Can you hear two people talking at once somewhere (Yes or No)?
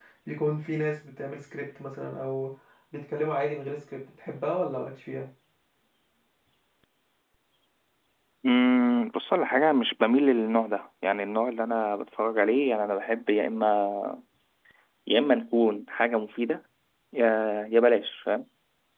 No